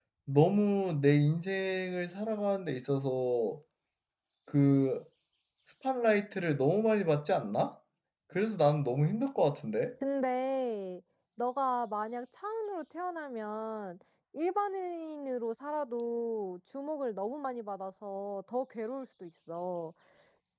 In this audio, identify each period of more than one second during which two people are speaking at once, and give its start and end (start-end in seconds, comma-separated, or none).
none